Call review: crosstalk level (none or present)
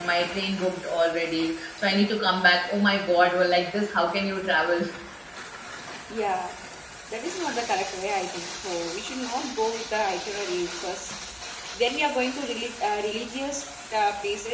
none